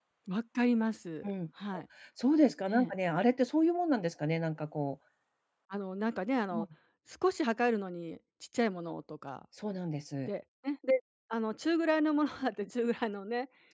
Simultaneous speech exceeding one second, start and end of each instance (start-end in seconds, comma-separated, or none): none